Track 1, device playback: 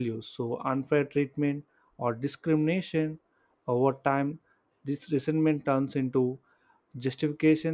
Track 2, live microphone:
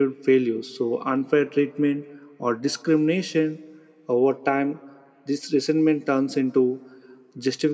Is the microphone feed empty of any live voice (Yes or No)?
Yes